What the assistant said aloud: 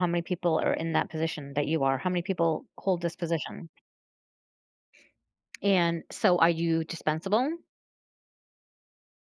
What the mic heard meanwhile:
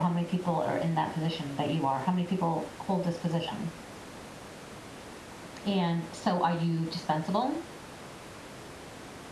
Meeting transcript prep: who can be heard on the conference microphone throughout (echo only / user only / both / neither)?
echo only